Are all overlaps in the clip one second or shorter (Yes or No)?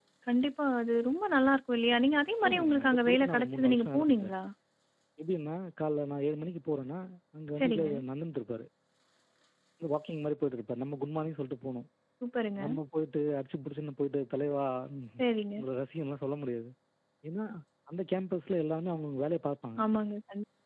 No